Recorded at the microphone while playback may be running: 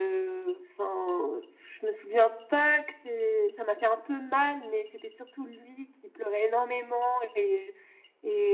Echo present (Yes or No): Yes